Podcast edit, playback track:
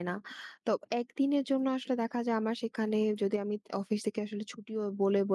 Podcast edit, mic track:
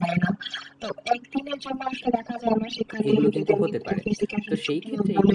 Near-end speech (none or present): present